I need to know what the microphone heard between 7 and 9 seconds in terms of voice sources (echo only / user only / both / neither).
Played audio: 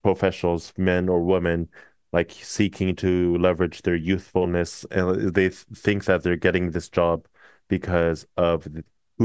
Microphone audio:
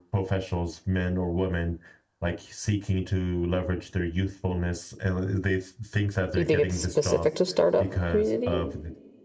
both